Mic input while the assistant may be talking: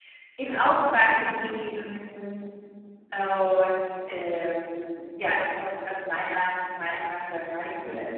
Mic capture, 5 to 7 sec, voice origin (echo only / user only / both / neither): user only